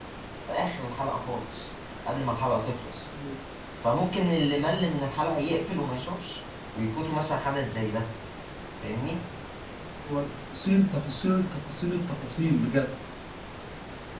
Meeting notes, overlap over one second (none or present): none